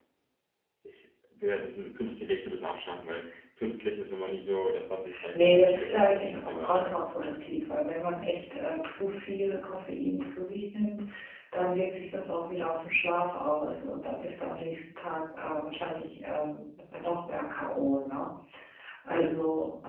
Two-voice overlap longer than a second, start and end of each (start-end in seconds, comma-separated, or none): 5.3-6.9